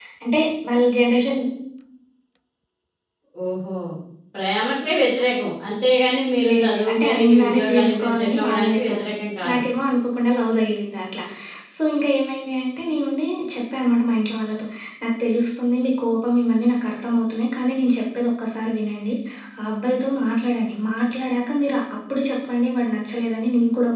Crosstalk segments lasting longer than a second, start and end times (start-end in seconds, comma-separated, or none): 6.5-9.1